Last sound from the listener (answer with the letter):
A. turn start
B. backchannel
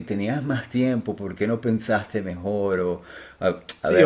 A